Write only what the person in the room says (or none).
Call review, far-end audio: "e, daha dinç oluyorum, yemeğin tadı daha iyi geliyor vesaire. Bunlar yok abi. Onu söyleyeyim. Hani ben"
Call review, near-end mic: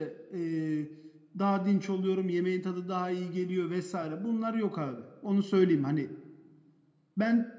none